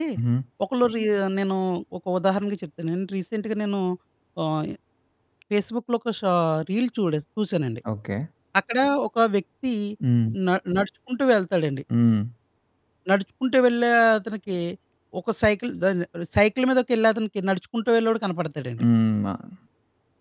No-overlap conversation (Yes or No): Yes